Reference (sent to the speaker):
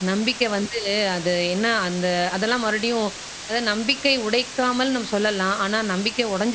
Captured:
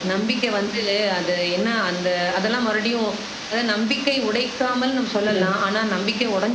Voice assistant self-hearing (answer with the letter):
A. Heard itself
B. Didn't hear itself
A